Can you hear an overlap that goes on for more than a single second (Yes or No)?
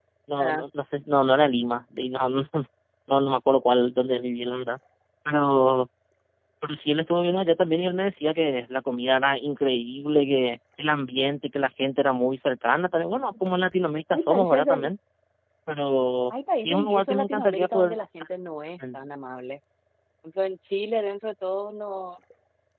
Yes